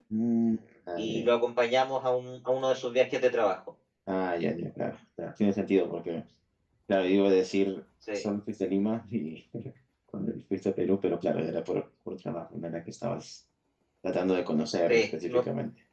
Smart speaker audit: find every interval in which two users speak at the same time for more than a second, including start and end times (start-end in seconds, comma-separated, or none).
none